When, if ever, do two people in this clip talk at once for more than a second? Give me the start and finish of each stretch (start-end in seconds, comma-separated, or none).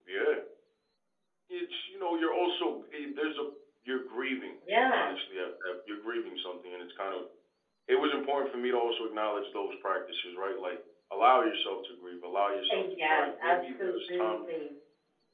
12.7-14.3